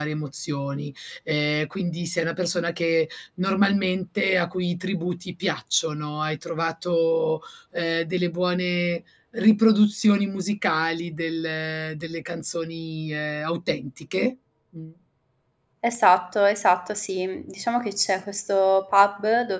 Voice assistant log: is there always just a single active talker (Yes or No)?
Yes